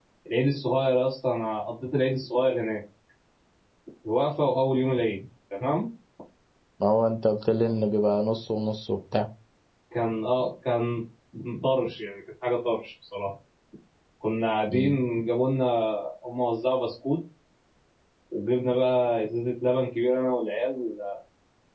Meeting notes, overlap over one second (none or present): none